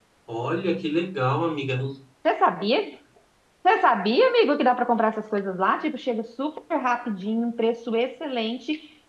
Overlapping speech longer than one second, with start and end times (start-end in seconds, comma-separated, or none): none